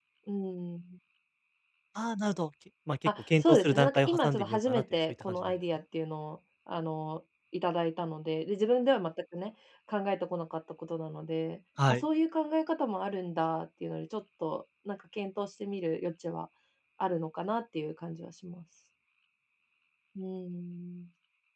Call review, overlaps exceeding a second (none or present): present